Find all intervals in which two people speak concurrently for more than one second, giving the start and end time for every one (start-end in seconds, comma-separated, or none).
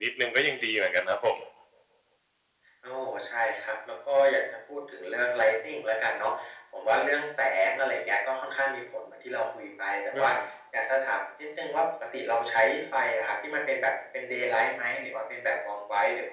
none